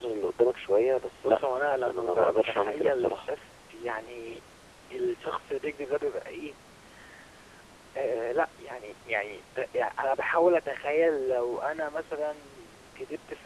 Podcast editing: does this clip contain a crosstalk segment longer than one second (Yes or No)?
Yes